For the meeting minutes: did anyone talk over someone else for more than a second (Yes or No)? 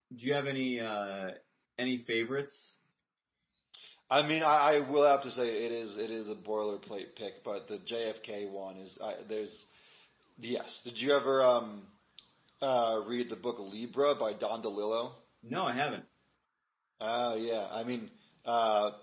No